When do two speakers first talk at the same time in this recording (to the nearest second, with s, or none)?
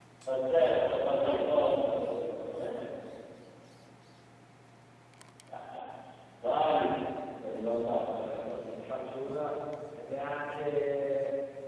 1 s